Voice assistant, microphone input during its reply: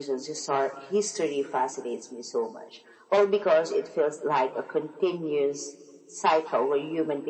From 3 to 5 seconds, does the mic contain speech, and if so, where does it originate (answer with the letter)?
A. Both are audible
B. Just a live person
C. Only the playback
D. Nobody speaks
C